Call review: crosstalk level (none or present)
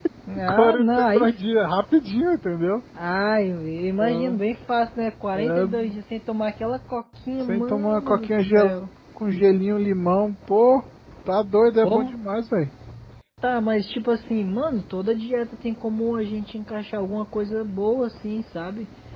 present